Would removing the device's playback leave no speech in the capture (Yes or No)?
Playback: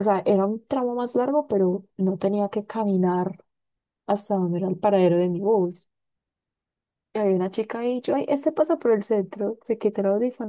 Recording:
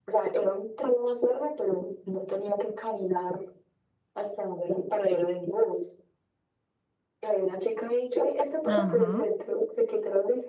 No